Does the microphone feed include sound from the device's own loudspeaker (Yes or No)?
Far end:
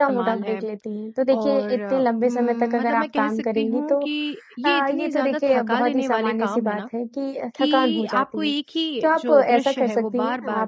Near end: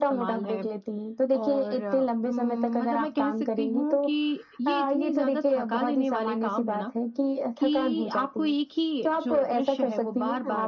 Yes